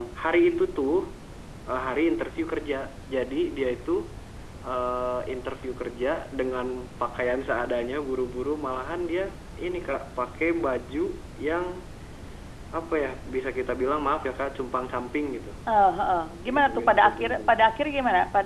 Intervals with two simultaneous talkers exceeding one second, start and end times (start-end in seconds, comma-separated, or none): 16.5-17.7